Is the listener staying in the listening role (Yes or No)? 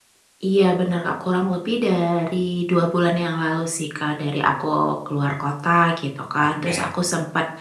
Yes